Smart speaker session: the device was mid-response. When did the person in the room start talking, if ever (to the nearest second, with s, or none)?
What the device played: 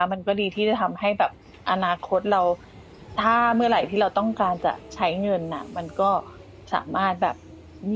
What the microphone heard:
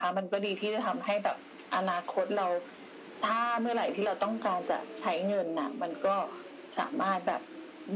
none